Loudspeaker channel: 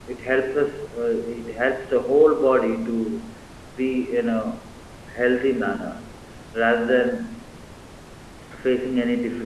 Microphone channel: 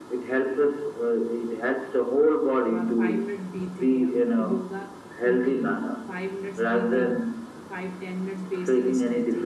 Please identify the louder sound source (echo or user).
echo